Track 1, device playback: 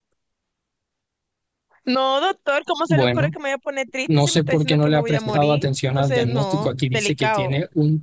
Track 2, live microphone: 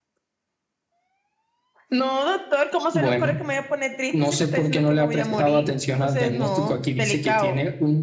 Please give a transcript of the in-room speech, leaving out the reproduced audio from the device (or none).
none